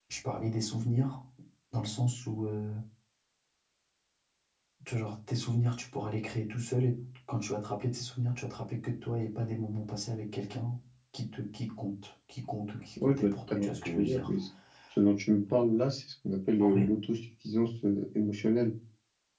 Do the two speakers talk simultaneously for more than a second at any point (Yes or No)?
Yes